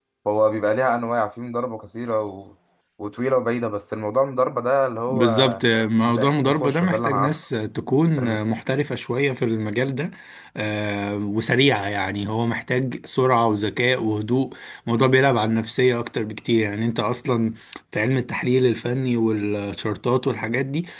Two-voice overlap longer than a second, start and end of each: 6.1-7.4

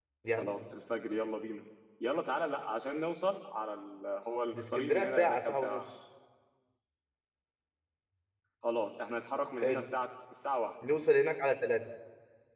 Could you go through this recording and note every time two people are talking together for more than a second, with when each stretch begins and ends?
4.5-5.9

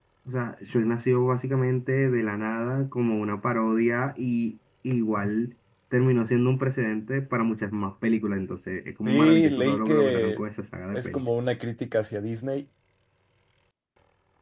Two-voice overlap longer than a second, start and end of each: 9.1-10.4

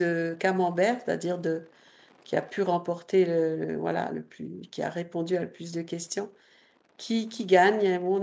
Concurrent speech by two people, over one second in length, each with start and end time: none

